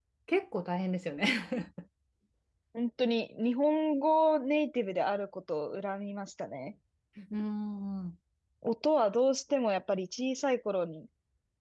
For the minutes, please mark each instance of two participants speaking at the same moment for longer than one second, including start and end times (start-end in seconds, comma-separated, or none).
none